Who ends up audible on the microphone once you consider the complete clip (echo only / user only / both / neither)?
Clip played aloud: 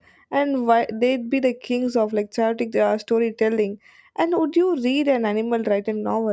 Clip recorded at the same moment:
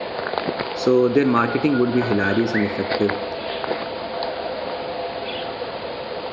user only